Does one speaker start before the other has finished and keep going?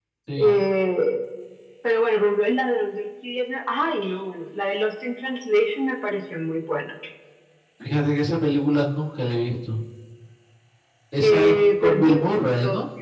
Yes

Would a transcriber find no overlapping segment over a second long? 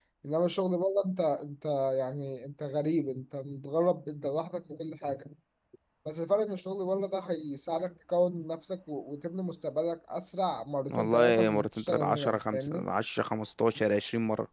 No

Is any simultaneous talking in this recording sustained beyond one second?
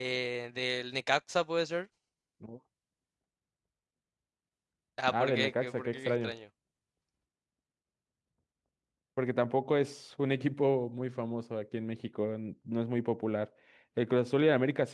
Yes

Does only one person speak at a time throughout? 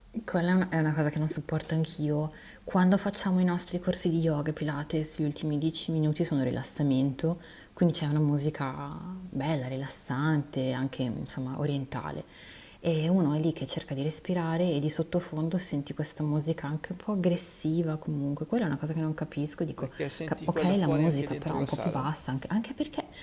No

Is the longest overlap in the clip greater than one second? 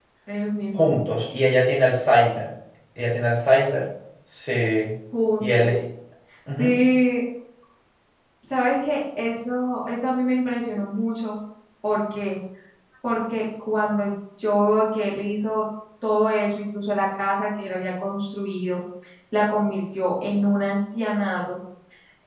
No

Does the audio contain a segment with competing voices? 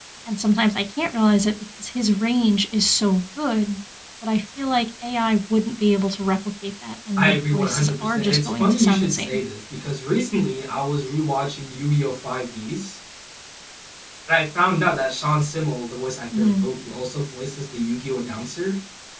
Yes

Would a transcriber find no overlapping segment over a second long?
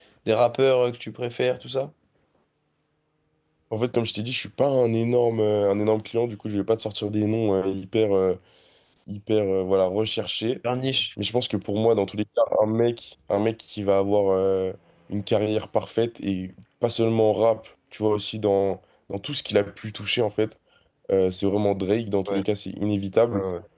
Yes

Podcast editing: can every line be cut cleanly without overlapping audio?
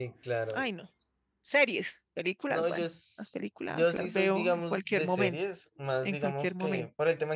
No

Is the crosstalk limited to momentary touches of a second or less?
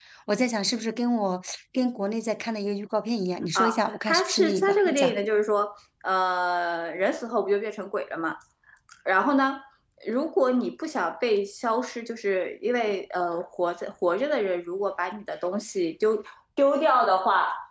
No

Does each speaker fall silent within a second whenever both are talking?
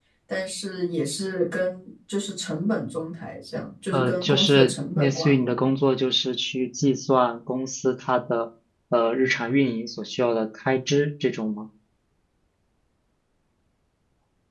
No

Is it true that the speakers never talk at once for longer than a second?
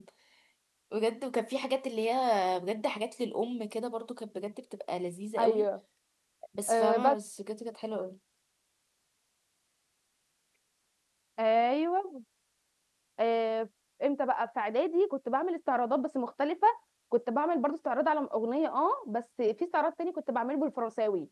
Yes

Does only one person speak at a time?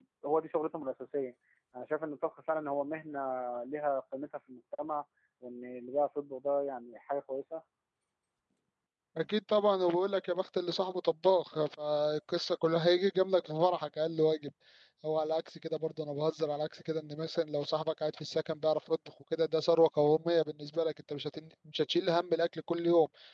Yes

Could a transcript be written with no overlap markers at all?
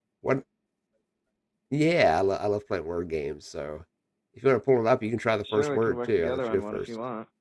No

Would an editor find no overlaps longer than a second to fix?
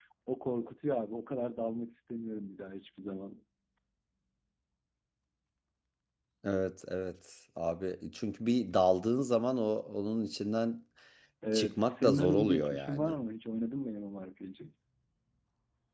No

